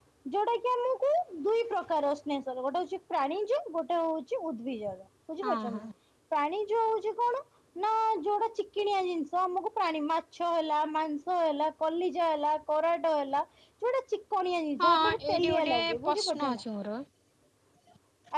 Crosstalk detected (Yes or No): Yes